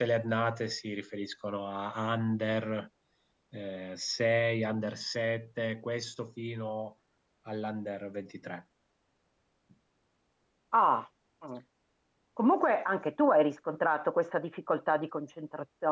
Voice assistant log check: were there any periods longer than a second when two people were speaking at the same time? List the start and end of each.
none

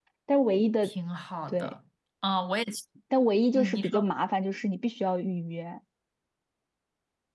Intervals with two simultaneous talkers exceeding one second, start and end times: none

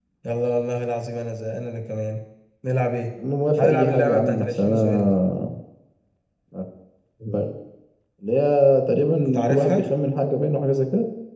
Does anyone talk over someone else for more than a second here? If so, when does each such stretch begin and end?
3.6-5.2

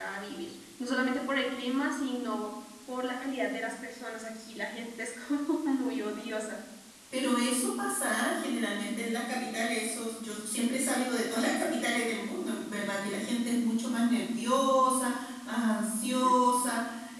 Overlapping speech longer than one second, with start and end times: none

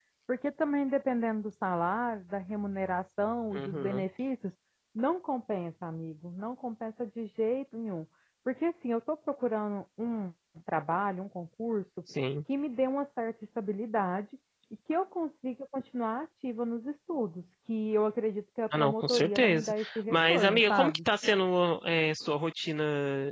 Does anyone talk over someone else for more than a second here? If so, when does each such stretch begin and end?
18.8-21.0

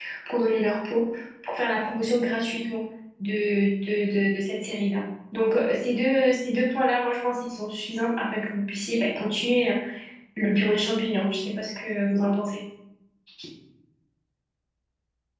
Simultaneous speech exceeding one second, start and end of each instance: none

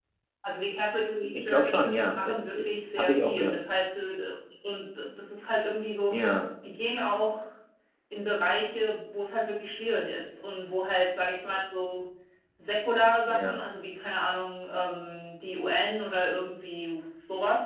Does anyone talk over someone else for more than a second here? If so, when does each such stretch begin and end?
1.4-3.6

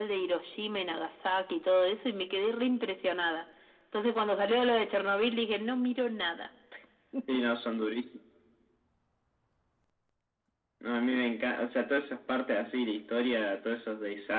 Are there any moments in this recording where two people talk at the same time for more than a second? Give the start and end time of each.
none

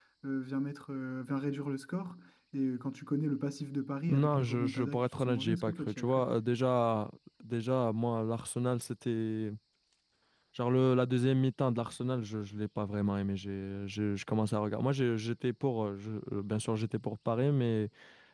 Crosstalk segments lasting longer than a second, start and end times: 4.1-6.2

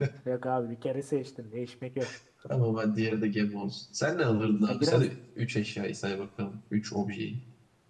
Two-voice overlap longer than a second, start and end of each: none

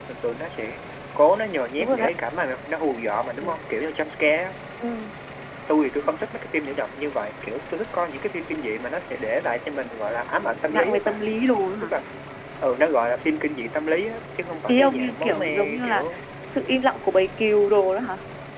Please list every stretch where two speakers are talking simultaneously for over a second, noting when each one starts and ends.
14.7-16.0

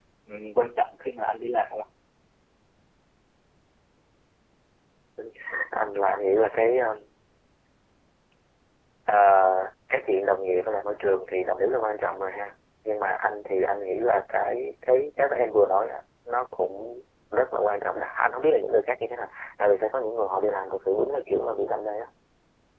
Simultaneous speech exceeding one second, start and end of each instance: none

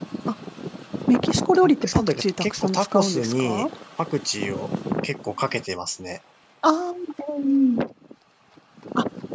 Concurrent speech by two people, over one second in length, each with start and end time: 1.5-3.7

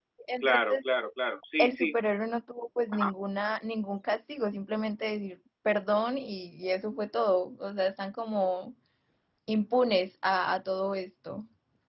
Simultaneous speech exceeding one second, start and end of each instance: none

